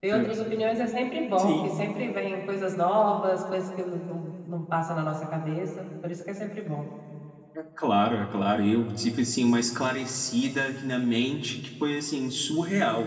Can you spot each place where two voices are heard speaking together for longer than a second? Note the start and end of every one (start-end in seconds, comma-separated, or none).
none